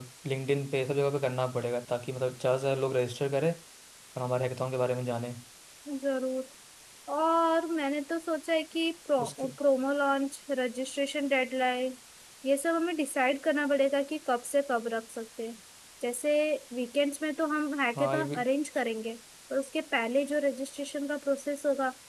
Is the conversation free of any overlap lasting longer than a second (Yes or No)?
Yes